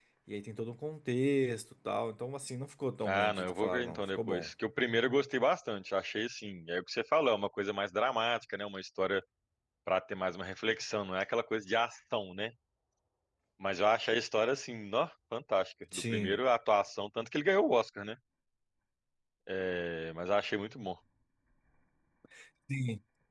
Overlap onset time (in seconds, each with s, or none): 3.0 s